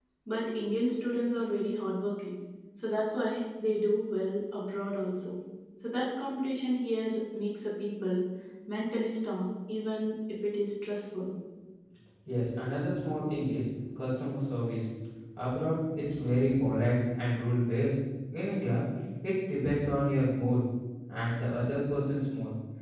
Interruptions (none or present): none